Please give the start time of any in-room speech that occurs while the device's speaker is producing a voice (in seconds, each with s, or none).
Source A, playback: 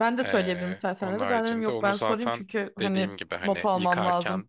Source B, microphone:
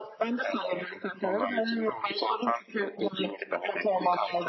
none